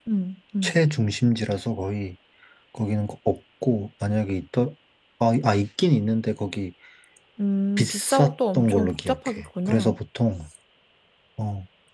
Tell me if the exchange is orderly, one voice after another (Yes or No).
No